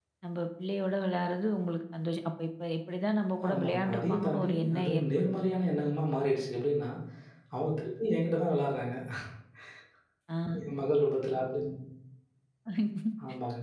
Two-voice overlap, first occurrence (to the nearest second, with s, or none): 3 s